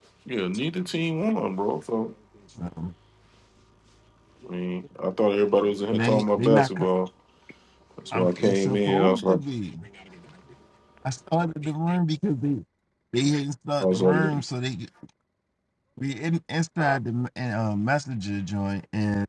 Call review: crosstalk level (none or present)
present